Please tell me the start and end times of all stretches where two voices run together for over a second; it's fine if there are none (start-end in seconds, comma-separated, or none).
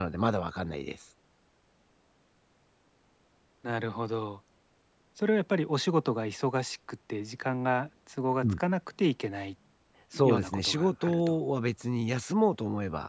10.1-11.3